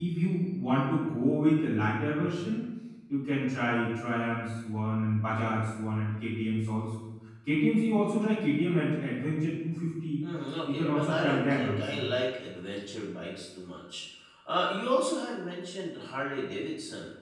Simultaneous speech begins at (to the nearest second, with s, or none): 11 s